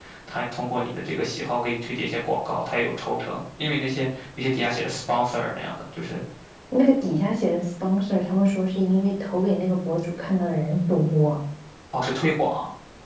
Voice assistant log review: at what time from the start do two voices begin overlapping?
none

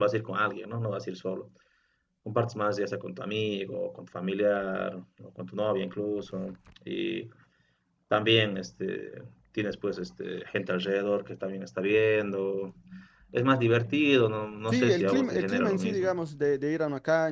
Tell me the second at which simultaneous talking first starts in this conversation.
15 s

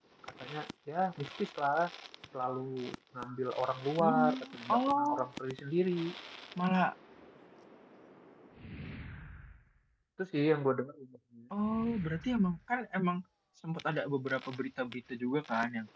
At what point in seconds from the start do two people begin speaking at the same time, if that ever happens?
4 s

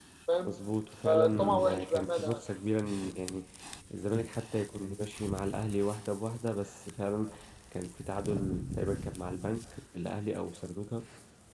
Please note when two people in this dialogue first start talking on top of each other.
1 s

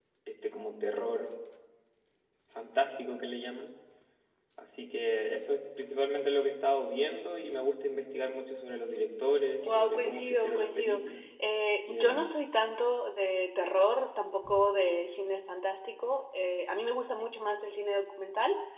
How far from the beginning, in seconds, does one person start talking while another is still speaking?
10 s

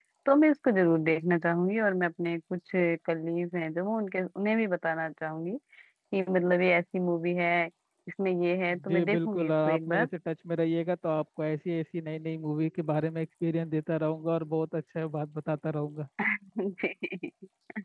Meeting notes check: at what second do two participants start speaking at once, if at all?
9 s

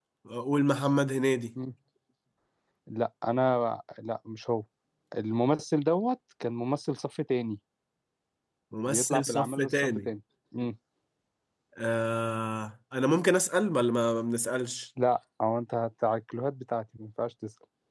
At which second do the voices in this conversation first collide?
9 s

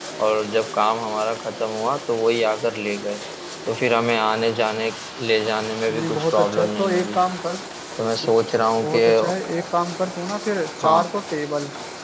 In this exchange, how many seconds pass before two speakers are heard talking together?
6 s

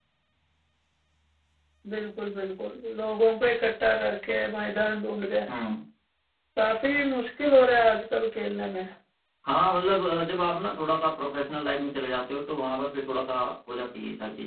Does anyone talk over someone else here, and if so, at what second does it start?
none

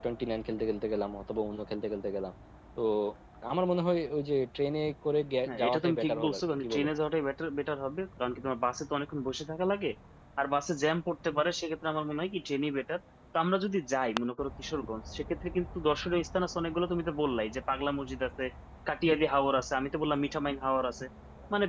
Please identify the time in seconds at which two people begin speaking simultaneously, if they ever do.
5 s

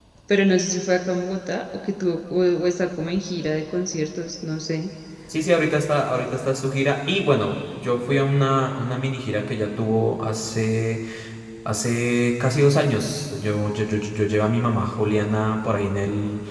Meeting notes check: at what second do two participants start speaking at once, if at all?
none

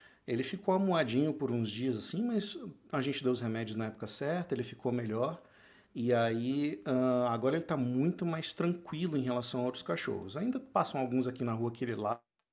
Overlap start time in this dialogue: none

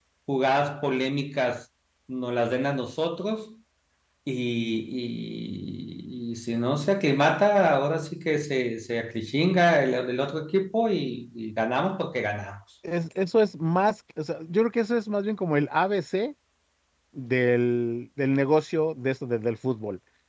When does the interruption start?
none

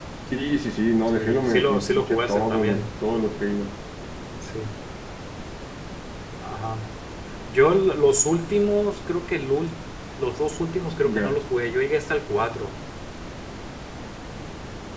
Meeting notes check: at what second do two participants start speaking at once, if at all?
1 s

